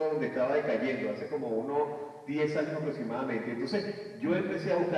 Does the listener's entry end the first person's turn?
No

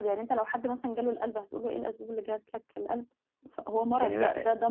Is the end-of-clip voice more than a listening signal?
No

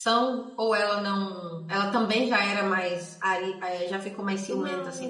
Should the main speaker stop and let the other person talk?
Yes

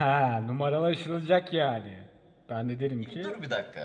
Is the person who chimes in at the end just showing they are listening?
No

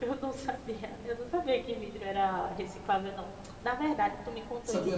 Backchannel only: Yes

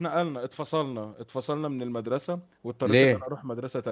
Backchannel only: Yes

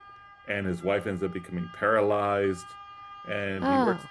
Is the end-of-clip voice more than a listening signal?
No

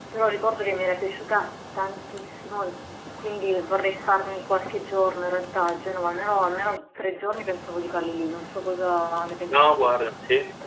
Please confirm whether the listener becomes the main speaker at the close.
Yes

